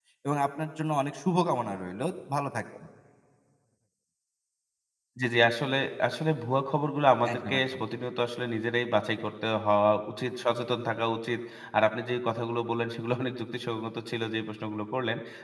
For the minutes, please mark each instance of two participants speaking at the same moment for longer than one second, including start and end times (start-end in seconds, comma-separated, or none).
none